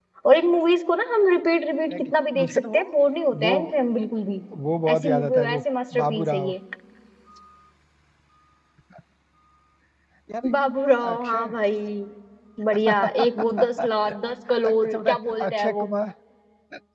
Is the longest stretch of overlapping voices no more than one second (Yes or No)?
No